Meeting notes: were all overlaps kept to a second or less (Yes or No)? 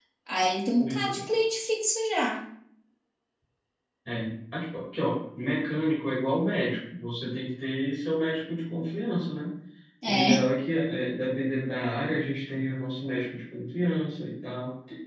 Yes